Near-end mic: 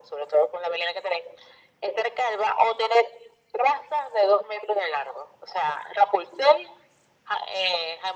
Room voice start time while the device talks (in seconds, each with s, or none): none